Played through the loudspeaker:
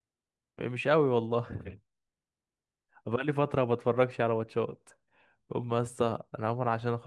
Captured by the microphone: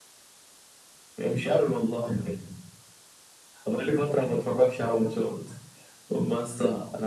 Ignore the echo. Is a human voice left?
No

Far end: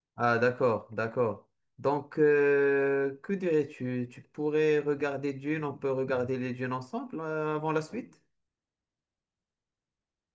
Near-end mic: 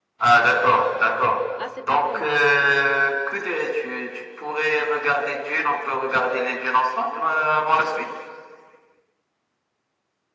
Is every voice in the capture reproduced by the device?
No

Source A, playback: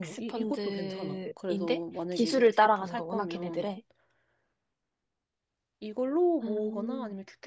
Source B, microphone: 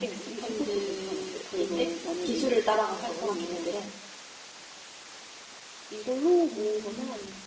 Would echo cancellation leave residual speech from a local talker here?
No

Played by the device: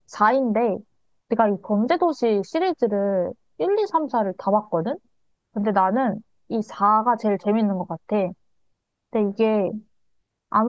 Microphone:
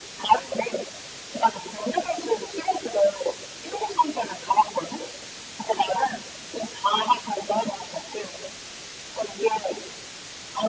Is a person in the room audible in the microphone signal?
No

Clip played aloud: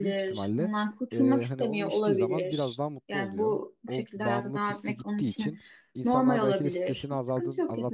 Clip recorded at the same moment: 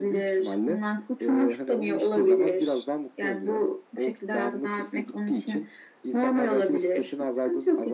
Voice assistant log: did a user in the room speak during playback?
No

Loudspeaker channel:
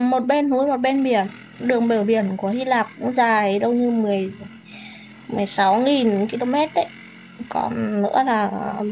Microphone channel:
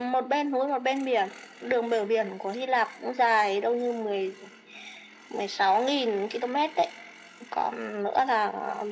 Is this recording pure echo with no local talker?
Yes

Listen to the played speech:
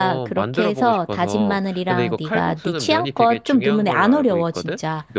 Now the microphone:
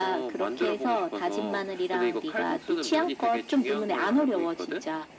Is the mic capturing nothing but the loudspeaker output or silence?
Yes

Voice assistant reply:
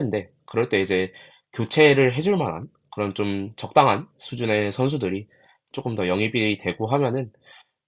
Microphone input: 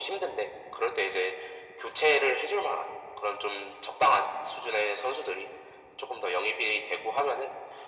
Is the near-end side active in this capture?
No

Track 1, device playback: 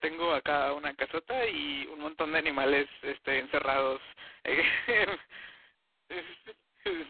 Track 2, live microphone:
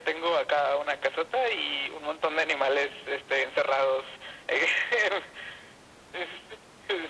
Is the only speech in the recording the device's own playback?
Yes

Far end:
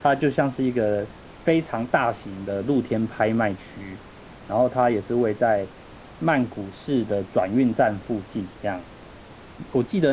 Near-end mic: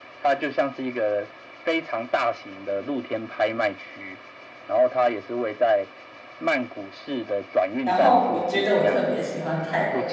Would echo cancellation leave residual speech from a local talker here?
Yes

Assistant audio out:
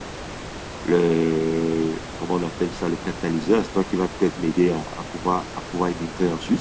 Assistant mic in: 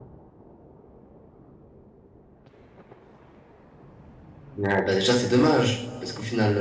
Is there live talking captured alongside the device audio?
Yes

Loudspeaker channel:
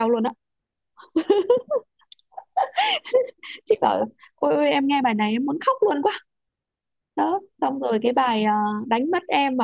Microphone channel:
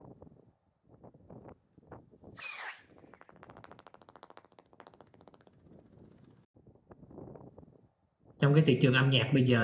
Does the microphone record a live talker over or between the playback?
Yes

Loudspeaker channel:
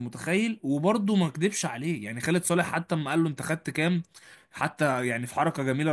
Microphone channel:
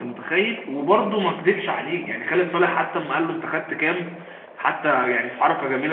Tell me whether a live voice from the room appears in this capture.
No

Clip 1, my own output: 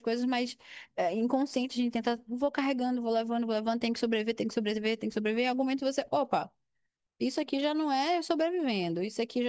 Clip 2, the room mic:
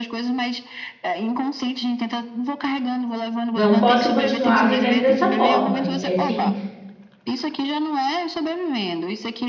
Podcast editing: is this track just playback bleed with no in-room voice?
No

